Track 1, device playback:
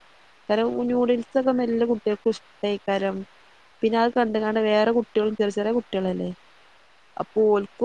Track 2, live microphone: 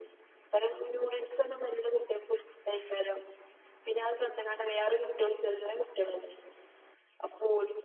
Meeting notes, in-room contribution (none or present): none